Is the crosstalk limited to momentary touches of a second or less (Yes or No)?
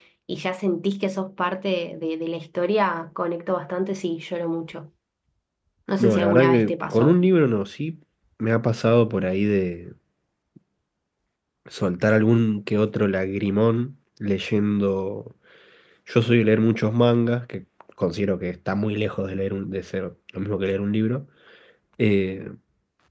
No